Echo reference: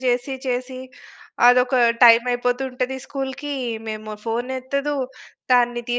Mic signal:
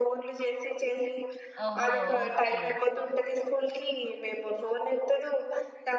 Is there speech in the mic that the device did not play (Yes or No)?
Yes